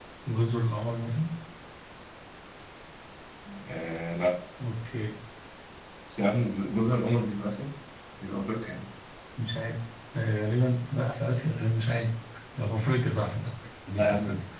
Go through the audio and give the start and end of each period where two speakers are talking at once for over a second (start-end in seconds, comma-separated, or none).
none